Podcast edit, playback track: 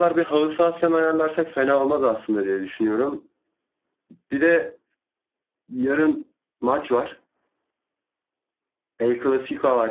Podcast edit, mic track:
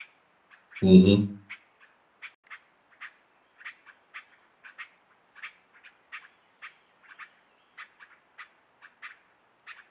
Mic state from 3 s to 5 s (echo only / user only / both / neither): neither